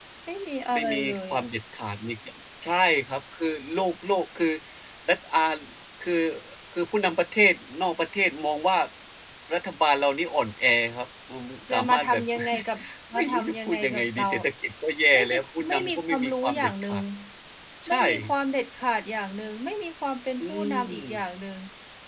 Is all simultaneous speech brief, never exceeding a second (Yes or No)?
No